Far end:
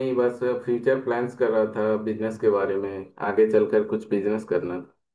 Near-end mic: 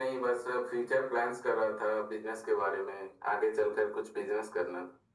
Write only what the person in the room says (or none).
none